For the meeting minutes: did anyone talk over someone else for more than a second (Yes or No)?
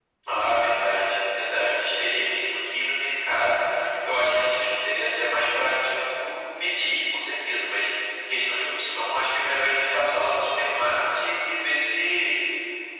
No